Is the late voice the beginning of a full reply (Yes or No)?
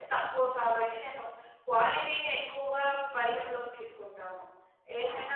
Yes